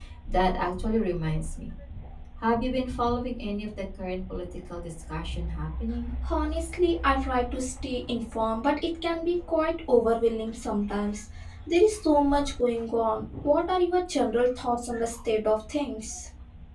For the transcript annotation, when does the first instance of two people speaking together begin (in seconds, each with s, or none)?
none